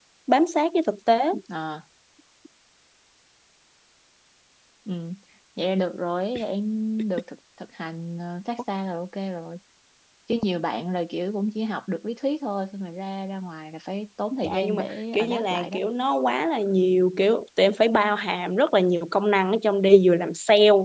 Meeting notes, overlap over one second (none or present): present